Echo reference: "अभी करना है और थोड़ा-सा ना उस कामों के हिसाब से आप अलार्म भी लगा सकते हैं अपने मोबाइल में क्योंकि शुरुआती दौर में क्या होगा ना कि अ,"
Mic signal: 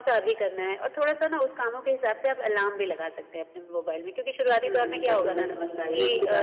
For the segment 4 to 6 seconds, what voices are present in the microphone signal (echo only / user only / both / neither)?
both